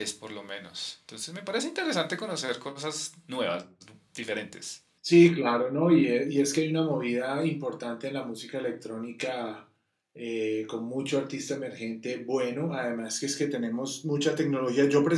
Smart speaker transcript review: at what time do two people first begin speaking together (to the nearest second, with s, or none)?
none